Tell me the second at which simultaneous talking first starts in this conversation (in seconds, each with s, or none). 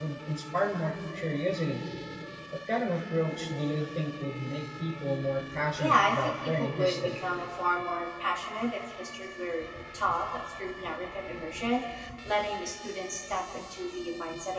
5.8 s